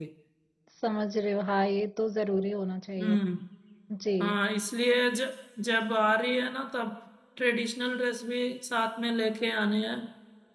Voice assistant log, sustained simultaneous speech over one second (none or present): none